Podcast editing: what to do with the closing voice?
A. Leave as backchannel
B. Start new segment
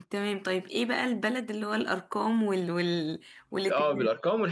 B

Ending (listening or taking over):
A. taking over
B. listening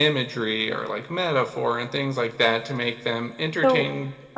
A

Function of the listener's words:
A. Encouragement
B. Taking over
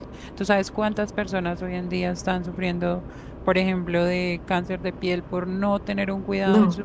B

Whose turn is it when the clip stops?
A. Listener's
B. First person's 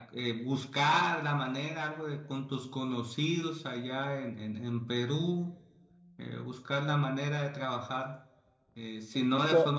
B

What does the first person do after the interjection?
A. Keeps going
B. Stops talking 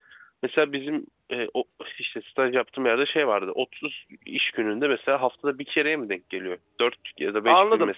B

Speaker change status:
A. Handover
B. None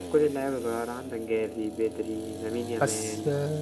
B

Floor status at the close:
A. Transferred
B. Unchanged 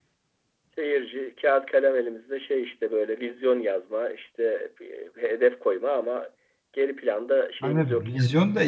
A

